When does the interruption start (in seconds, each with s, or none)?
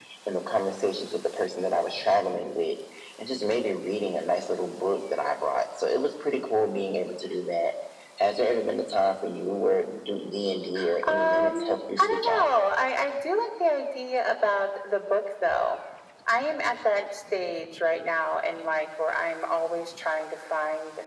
11.0 s